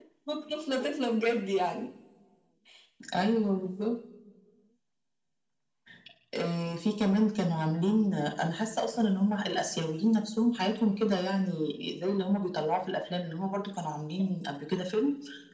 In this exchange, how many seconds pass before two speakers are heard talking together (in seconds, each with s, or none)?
none